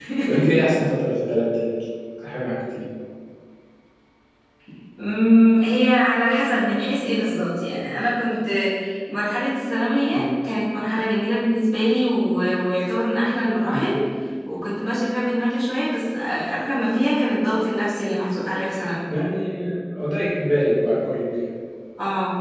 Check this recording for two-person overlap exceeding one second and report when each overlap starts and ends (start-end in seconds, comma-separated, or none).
none